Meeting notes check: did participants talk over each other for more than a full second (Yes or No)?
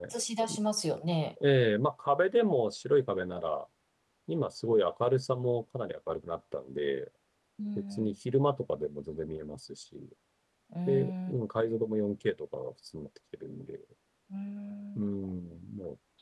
No